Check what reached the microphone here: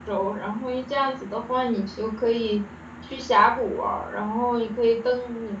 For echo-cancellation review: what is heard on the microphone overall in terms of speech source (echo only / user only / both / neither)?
user only